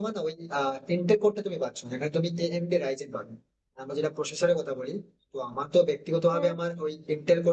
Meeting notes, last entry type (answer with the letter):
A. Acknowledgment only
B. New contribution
A